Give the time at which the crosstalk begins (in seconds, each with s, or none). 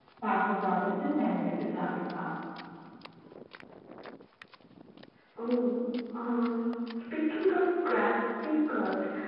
none